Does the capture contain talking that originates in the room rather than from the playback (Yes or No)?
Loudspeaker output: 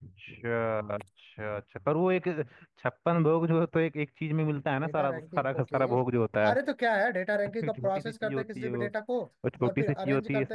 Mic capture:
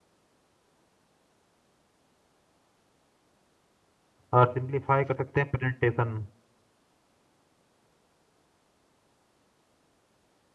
Yes